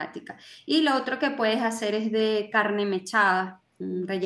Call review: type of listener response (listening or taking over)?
listening